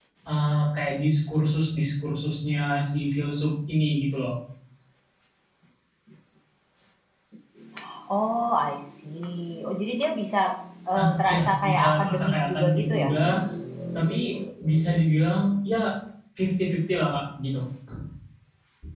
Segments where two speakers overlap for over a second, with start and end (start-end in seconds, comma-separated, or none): 11.0-13.1